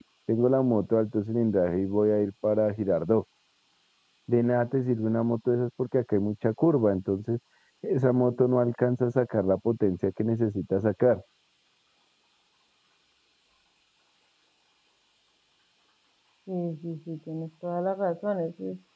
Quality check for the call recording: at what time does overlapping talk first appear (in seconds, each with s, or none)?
none